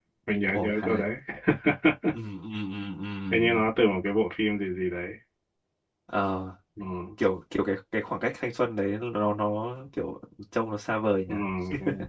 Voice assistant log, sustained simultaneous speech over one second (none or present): none